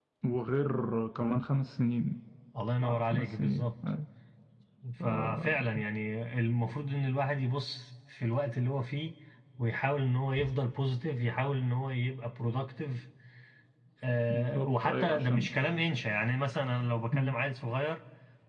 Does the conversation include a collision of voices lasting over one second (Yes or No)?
Yes